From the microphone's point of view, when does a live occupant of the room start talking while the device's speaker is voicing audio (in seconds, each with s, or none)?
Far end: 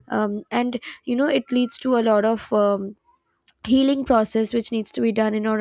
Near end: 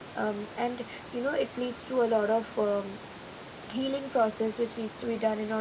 none